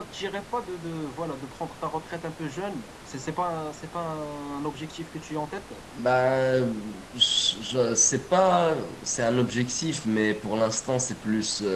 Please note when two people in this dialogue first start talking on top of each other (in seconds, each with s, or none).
none